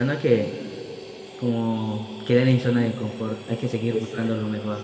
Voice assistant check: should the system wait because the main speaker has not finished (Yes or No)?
No